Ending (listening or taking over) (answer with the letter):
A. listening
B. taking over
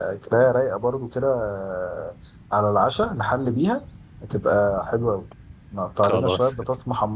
A